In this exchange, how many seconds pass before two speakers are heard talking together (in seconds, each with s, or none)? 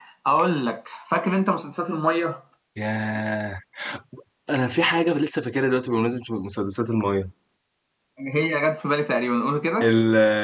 none